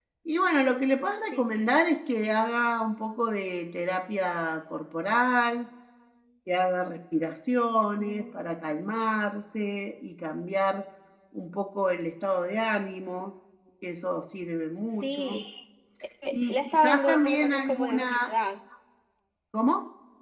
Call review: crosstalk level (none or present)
present